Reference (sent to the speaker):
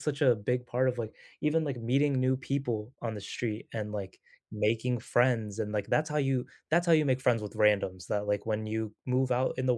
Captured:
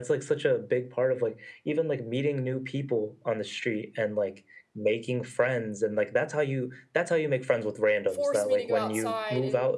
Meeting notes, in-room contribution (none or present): present